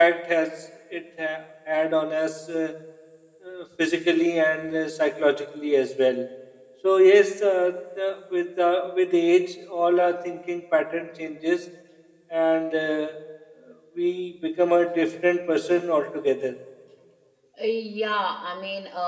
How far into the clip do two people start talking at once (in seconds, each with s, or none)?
none